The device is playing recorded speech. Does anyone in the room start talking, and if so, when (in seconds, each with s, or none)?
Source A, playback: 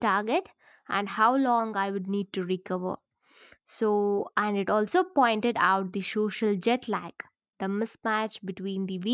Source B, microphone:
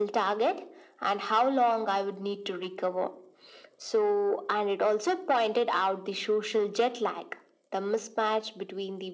none